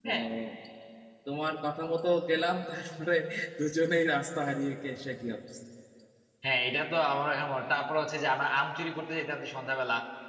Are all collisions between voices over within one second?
Yes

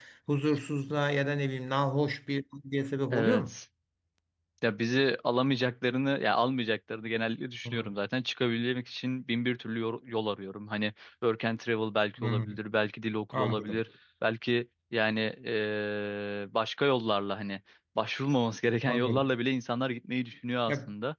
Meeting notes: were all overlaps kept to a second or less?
Yes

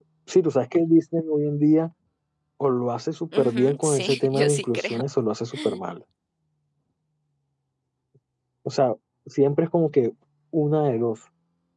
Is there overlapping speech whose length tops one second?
Yes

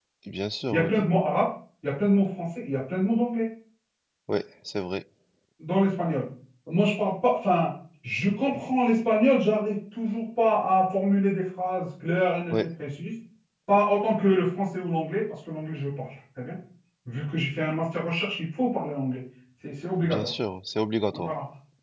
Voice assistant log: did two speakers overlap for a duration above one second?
No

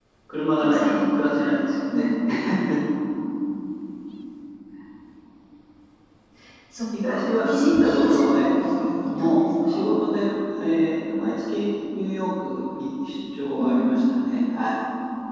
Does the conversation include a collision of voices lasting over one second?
Yes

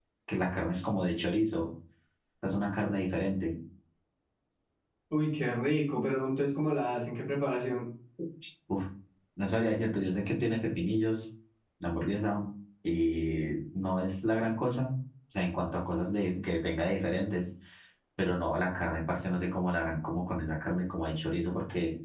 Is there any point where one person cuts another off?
No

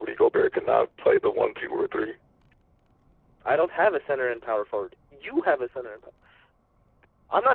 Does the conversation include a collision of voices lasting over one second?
No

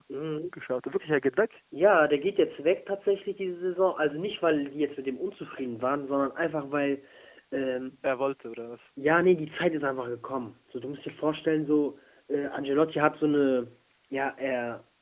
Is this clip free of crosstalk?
Yes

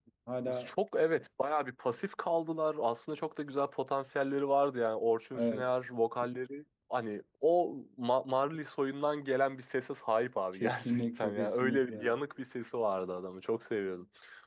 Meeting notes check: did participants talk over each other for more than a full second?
Yes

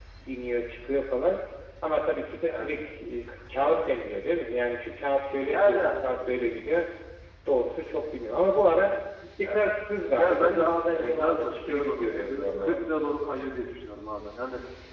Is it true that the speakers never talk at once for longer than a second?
No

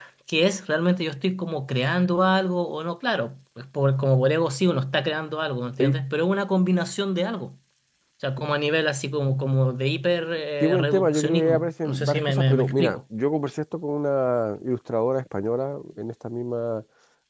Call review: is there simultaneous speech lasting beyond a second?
Yes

